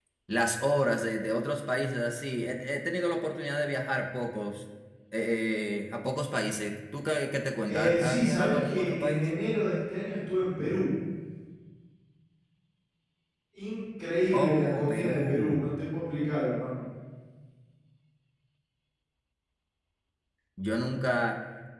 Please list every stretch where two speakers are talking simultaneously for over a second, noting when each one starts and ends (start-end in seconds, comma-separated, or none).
7.7-9.3, 14.3-15.7